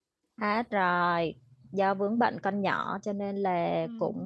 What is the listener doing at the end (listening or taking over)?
listening